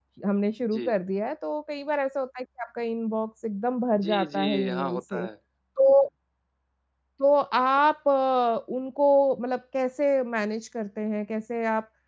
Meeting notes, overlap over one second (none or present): present